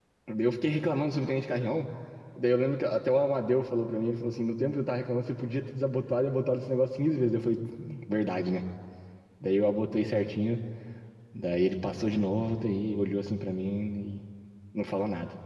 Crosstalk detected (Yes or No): No